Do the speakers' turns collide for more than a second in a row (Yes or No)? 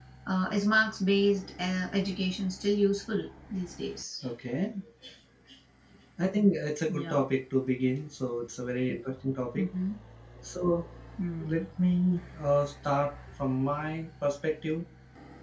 No